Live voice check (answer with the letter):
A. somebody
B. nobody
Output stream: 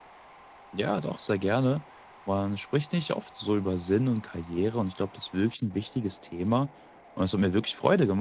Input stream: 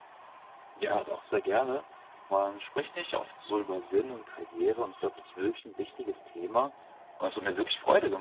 B